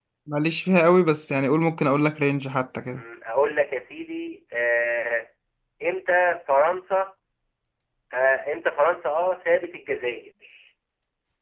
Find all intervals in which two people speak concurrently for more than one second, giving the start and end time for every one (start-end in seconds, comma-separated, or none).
none